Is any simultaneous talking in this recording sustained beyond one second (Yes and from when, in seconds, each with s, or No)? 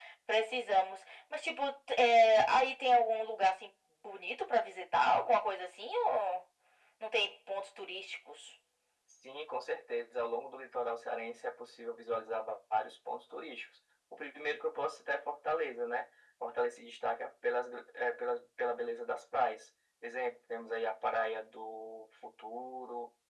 No